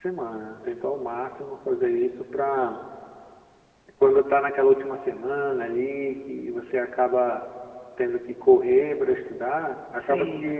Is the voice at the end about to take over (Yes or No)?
No